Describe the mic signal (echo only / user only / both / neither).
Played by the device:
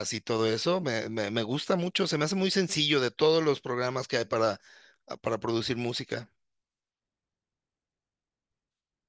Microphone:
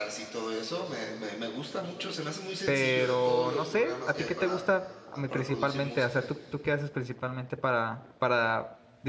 both